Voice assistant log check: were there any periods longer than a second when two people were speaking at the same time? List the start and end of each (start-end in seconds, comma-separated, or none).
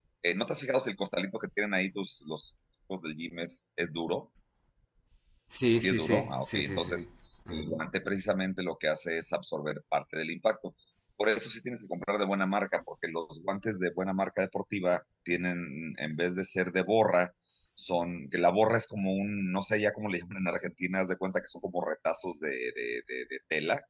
5.8-7.0